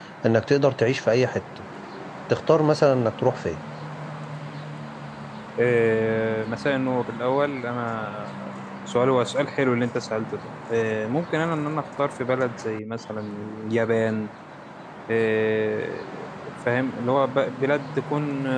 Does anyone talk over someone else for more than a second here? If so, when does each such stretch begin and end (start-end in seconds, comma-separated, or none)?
none